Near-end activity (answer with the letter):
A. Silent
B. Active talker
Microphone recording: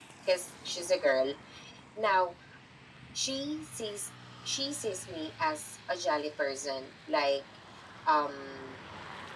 A